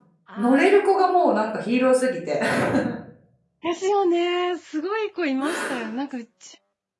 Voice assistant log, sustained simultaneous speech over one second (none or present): none